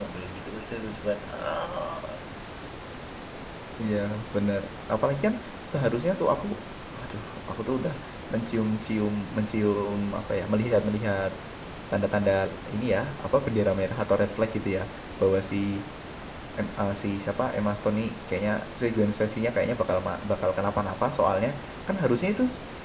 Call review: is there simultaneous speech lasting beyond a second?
No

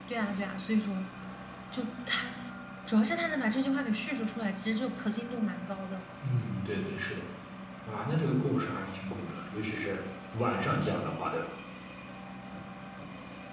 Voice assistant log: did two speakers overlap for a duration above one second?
No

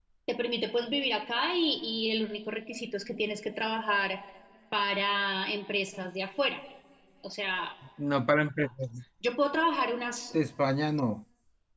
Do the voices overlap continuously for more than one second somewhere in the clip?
No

